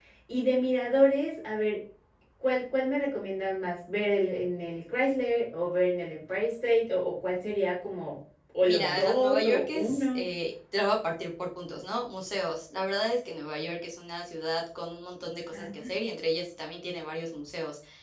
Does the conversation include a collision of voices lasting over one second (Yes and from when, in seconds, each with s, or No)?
Yes, from 8.6 s